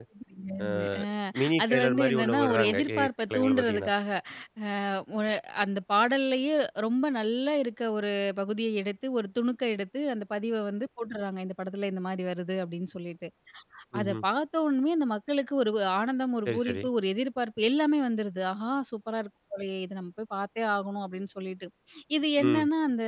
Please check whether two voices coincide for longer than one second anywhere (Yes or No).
Yes